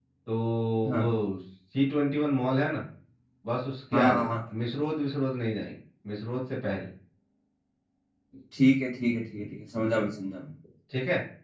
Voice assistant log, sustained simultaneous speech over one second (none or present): none